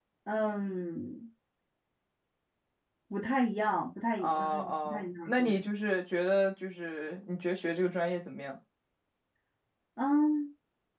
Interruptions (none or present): present